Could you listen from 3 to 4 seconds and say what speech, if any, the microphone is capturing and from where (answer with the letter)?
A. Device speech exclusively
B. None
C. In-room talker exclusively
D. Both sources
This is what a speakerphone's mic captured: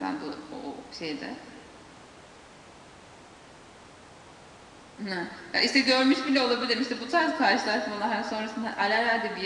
B